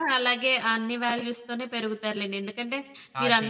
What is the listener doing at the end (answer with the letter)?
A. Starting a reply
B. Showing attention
B